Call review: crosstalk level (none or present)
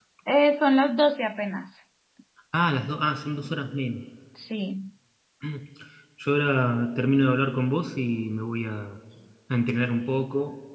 none